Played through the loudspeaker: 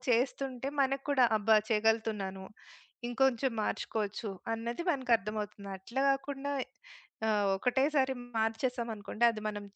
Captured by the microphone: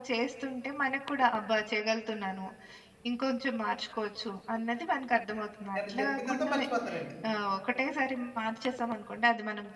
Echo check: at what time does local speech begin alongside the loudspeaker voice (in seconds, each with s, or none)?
5.8 s